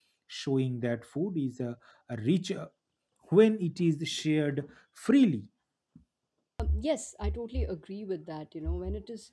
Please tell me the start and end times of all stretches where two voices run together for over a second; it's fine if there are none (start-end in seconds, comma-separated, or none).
none